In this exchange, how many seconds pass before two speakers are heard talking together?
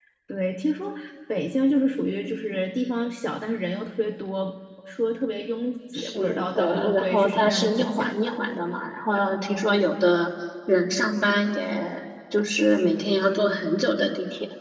5.9 s

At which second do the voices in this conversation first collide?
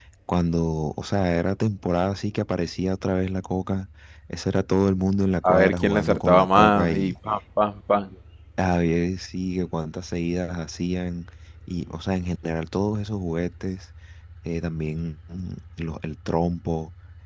5.4 s

